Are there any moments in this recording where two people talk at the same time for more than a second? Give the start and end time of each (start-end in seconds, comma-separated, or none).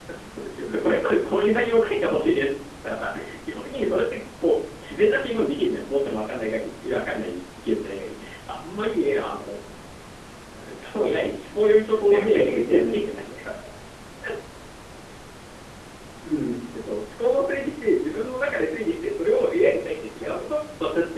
11.8-13.3